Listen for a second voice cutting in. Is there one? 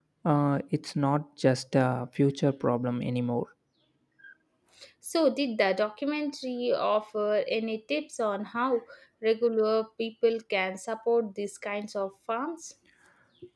No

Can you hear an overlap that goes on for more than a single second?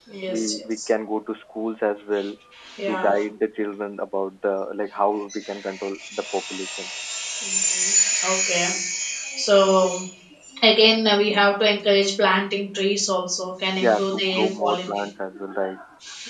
Yes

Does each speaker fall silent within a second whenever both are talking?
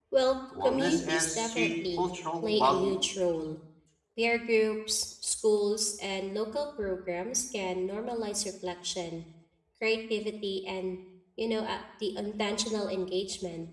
No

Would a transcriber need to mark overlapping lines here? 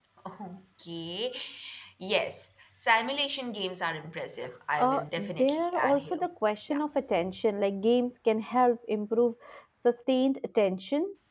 Yes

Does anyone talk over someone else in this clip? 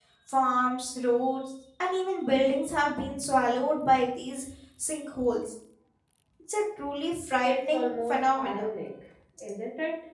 Yes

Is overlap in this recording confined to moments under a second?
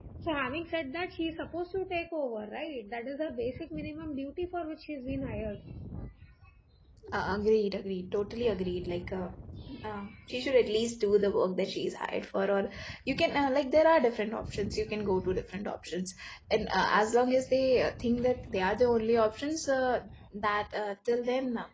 Yes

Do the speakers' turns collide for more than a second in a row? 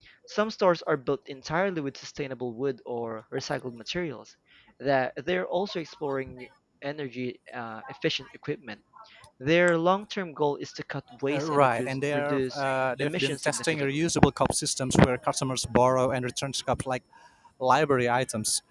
Yes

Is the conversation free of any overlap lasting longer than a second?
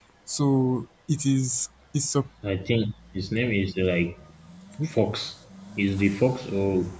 Yes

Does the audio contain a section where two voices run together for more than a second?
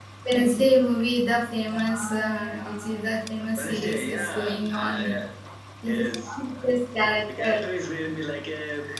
Yes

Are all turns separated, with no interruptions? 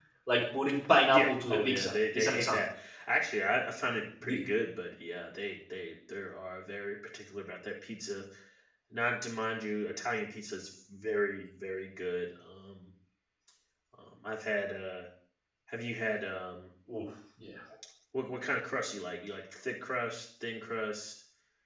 No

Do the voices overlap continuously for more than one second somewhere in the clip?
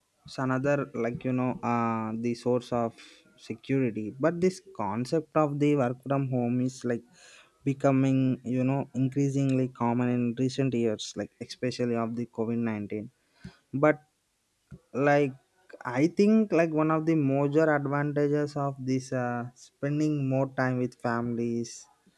No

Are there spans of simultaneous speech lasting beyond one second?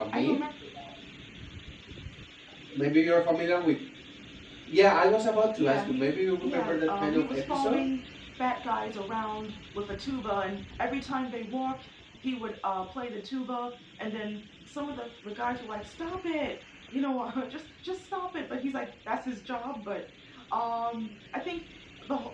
Yes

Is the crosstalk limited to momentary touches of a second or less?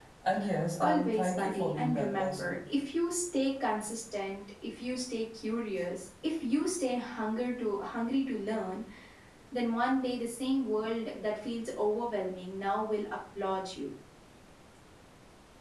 No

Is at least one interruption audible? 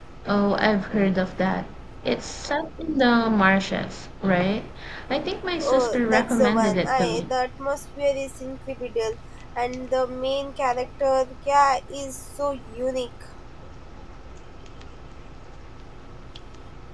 Yes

